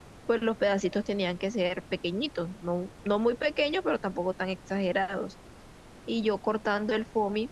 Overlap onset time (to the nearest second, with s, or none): none